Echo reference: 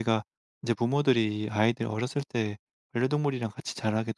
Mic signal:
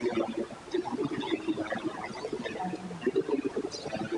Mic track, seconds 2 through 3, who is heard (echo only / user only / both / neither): both